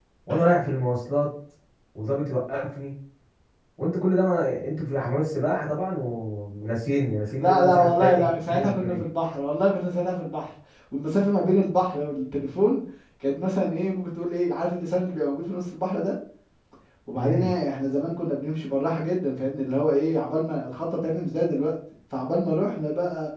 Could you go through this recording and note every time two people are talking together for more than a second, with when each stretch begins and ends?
7.4-9.0

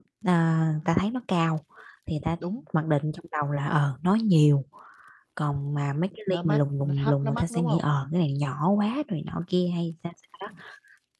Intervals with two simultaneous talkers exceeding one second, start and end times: 6.3-7.9

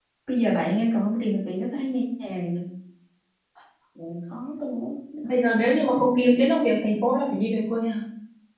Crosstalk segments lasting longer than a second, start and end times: none

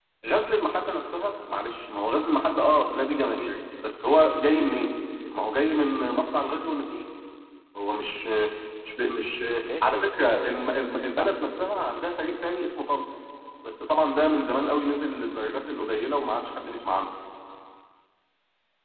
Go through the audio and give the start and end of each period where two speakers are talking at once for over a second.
9.8-11.3

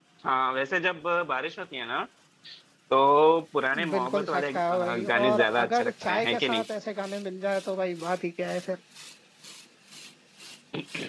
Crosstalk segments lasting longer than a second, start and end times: 3.9-6.6

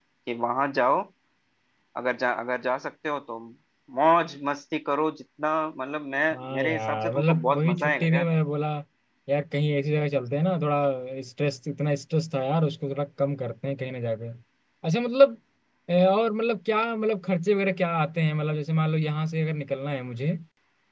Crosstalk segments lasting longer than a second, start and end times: 6.3-8.3

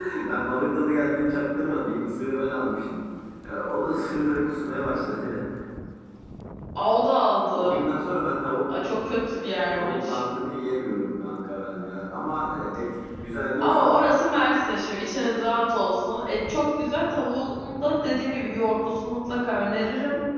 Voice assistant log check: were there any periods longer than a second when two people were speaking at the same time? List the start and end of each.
none

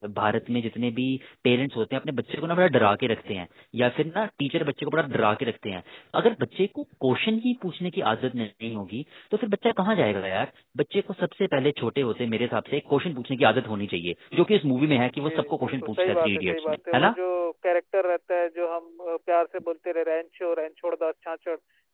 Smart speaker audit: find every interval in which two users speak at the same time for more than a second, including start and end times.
15.5-17.1

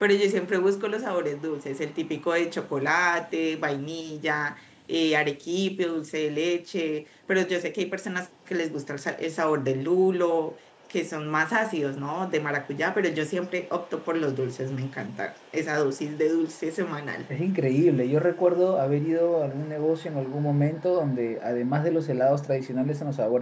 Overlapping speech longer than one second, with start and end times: none

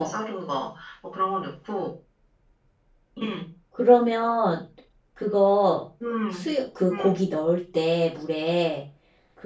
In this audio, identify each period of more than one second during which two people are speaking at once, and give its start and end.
none

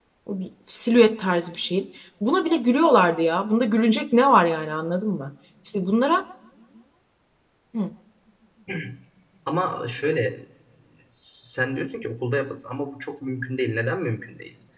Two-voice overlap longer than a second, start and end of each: none

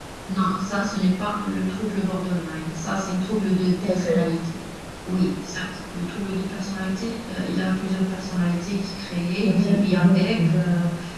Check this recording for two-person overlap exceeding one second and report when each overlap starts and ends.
9.4-10.7

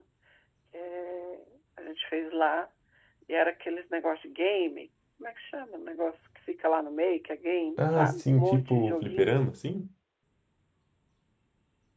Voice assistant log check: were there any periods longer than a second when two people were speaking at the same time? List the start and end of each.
7.8-9.4

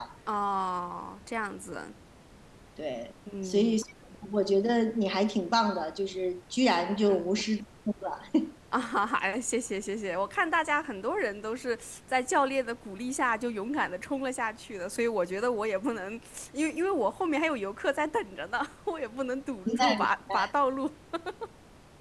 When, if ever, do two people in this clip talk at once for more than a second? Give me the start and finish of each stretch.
none

